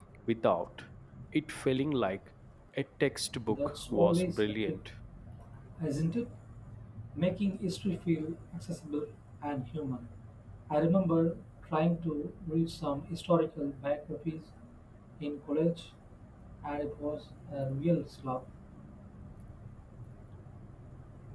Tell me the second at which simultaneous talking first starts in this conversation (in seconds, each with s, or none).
3.5 s